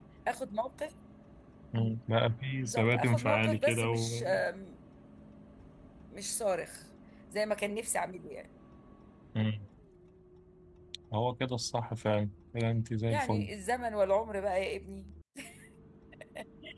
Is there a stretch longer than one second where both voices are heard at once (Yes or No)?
Yes